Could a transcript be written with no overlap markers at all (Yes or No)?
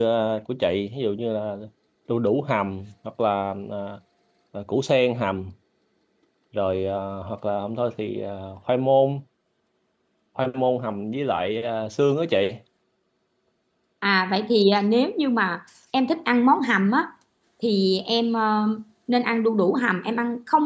Yes